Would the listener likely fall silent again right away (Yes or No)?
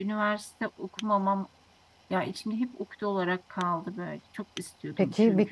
No